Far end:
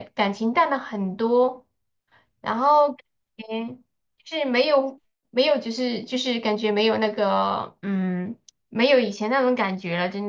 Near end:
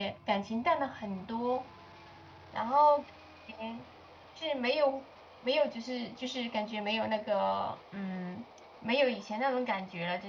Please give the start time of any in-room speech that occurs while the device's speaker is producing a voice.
none

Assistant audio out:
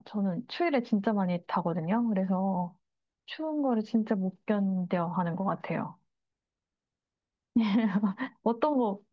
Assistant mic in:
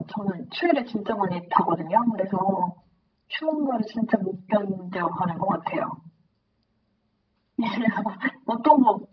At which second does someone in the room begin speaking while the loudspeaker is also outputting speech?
none

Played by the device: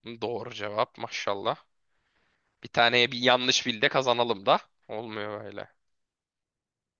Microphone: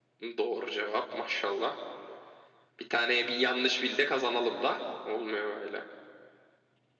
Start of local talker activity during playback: none

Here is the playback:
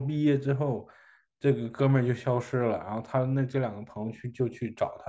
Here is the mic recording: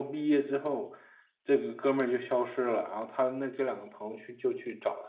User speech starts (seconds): none

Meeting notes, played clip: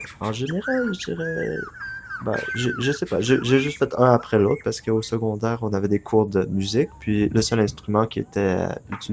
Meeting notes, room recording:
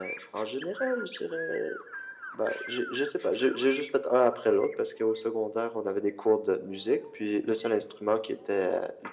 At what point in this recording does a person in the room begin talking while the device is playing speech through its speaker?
none

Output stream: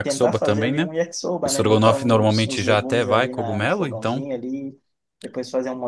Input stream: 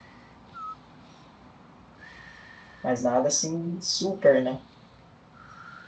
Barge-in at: 2.8 s

